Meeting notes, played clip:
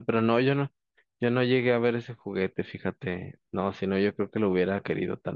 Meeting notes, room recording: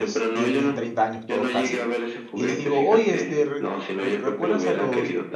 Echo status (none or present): present